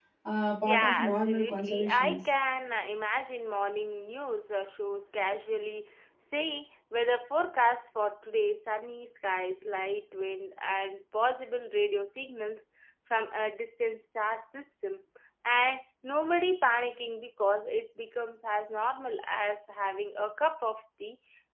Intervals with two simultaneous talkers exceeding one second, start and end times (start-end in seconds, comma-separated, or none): 0.7-2.2